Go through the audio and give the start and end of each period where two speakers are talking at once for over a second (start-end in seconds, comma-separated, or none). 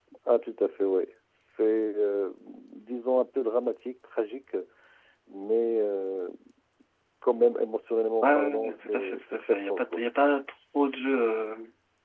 8.2-10.0